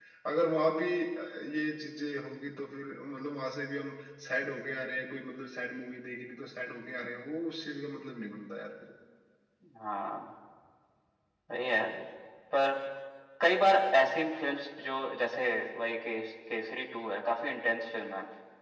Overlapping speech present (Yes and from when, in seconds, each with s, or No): No